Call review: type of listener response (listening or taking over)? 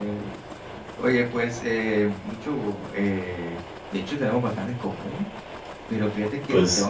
listening